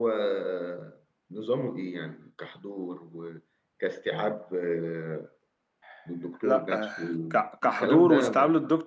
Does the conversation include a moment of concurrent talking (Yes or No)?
Yes